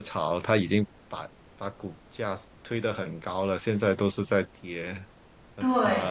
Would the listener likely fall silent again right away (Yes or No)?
No